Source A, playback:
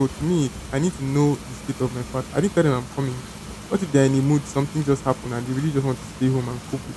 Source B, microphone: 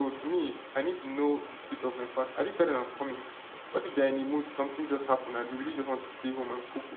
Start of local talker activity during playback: none

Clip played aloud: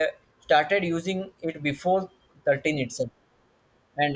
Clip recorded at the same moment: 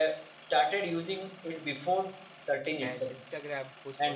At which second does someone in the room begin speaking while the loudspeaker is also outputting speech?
2.8 s

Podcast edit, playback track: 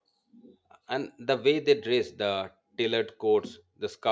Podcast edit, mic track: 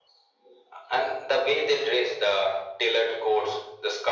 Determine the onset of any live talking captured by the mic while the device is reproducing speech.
none

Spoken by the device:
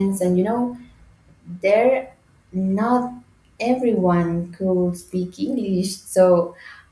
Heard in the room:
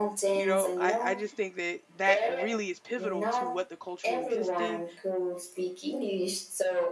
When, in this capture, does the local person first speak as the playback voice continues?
0.3 s

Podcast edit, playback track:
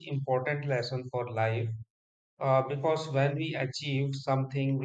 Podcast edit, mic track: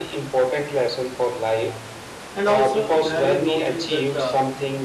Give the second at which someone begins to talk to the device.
2.4 s

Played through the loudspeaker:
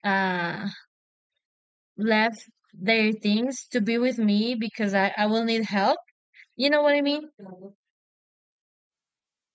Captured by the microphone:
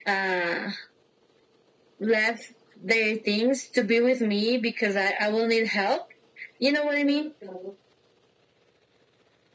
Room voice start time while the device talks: none

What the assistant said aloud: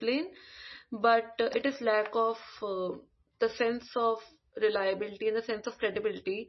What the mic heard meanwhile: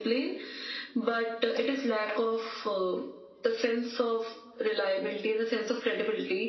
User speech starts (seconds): none

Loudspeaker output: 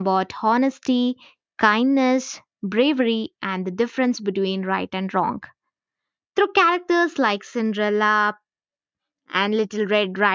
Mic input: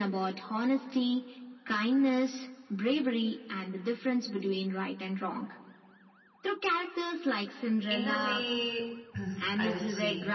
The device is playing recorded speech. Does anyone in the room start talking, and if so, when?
7.9 s

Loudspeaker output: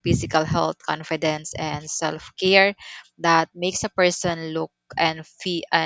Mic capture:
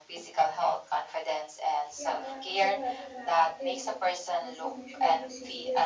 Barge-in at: 1.9 s

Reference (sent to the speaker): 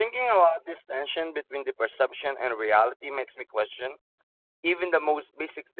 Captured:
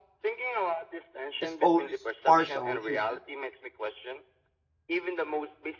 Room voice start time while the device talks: 1.4 s

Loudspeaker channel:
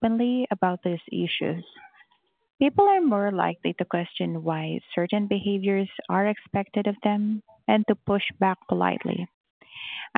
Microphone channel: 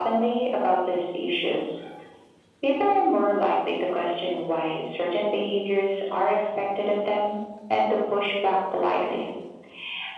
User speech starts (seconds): none

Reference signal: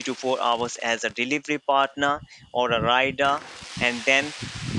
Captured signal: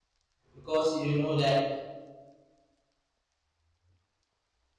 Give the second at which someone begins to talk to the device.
0.5 s

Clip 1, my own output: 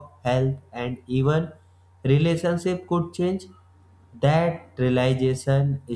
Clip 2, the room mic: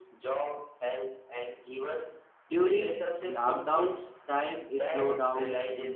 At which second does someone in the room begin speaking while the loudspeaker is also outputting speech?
2.5 s

